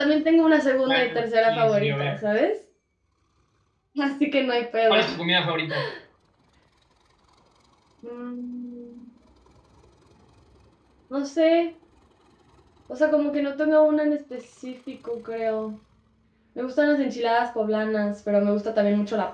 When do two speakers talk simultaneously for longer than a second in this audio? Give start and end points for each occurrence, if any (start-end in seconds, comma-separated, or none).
0.9-2.3